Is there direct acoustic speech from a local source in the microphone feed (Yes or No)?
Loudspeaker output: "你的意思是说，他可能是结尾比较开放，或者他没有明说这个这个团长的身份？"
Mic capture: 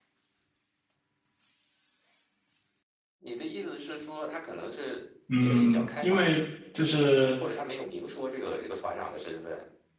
Yes